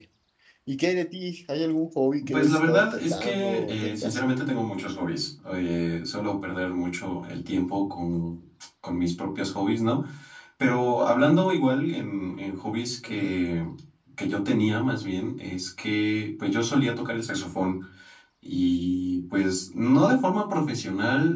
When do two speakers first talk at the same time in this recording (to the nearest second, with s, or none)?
2 s